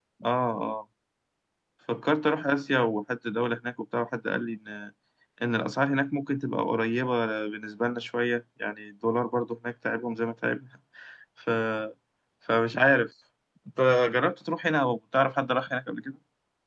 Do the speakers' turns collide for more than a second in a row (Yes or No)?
No